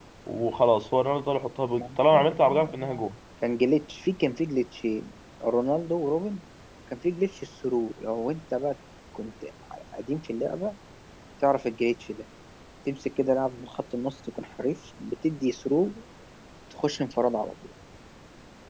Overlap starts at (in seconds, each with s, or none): 1.8 s